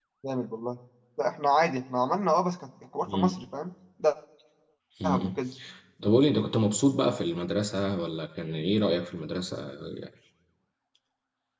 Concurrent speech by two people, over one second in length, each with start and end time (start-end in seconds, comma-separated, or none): none